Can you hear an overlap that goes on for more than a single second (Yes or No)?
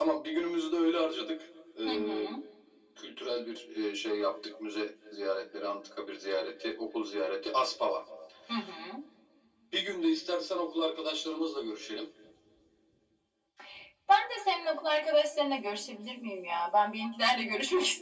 No